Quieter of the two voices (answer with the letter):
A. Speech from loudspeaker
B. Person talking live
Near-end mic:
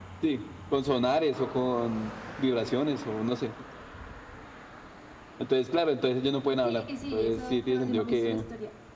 B